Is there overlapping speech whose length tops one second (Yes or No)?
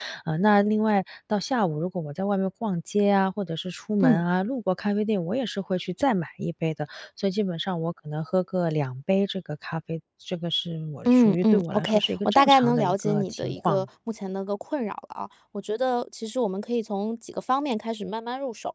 Yes